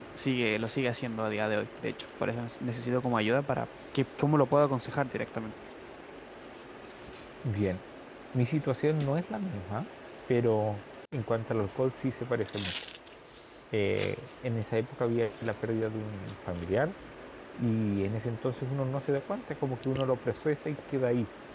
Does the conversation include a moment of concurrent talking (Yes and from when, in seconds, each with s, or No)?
No